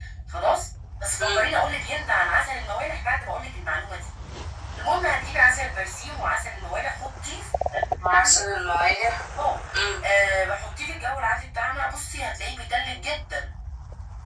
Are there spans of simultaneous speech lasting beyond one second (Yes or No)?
No